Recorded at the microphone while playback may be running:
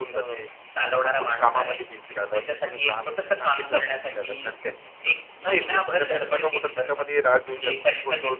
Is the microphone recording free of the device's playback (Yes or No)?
No